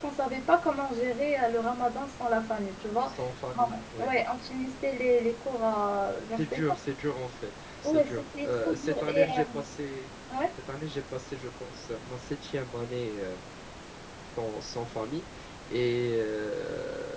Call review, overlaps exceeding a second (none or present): present